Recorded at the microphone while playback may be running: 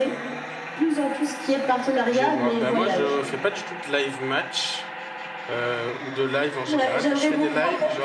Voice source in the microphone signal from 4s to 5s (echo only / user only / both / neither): user only